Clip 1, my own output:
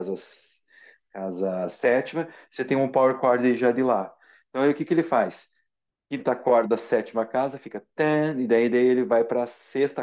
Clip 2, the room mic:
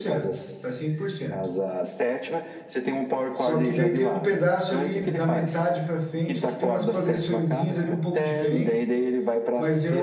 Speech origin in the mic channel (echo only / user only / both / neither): both